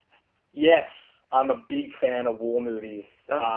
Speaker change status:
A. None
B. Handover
A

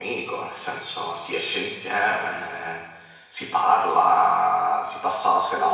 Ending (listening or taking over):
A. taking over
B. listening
A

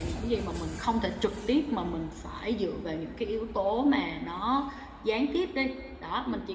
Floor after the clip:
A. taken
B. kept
B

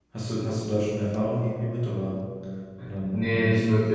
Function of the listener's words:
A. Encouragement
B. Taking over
B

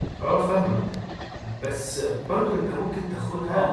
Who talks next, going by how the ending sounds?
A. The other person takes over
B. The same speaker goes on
B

